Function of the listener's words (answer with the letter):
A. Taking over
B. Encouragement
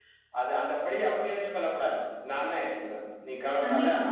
B